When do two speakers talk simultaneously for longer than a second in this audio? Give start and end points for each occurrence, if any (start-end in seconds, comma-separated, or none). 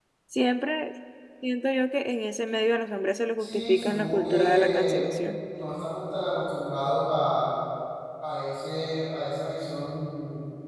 3.4-5.1